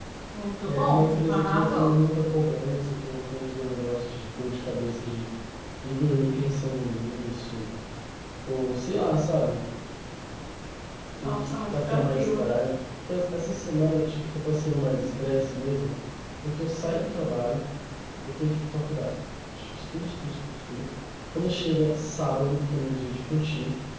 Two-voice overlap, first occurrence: 1 s

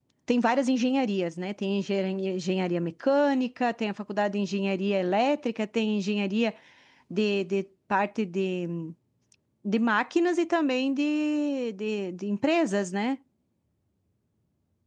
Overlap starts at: none

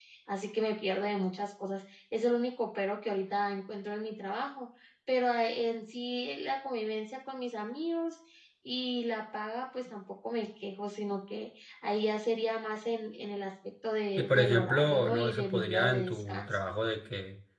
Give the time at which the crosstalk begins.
14 s

